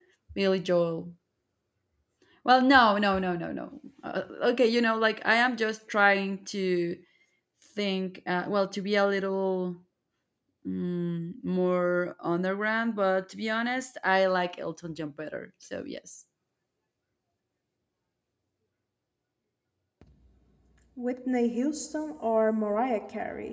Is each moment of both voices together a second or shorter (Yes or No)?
Yes